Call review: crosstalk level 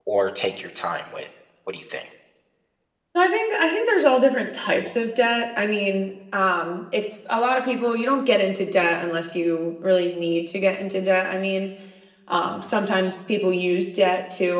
none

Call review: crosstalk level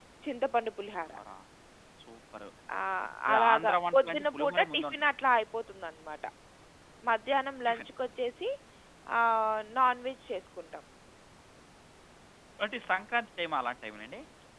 present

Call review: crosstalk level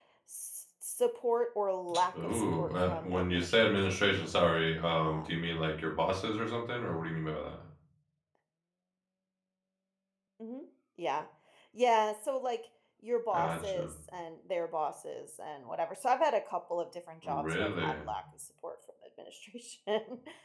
present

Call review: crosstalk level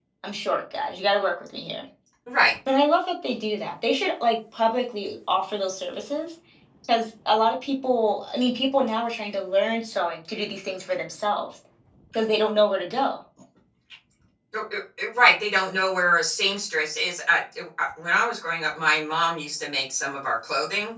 none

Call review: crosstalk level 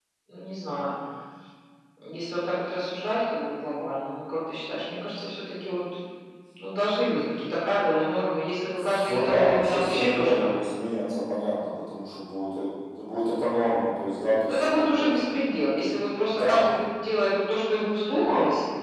present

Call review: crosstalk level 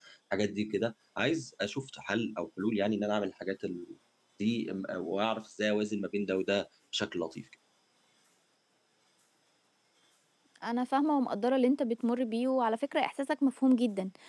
none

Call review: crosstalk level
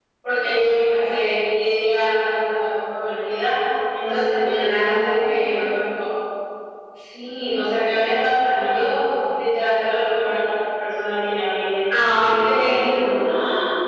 present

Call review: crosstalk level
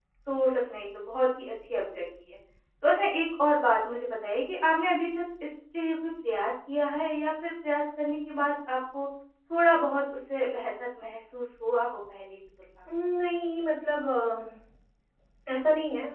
none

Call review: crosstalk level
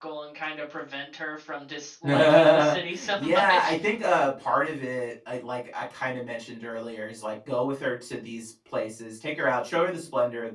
present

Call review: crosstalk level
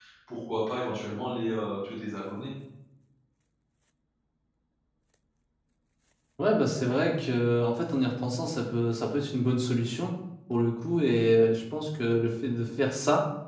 none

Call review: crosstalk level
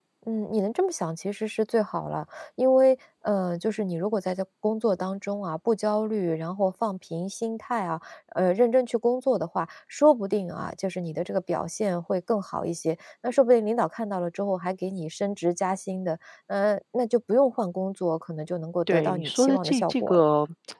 present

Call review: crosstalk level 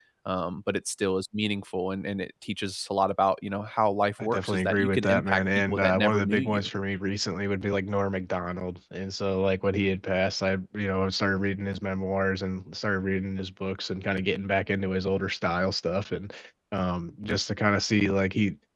present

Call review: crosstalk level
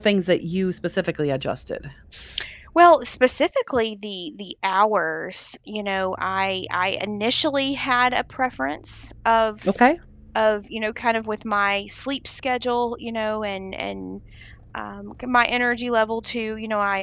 none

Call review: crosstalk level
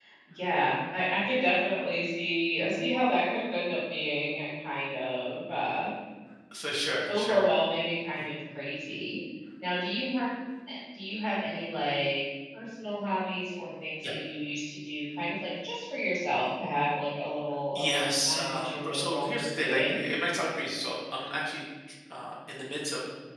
present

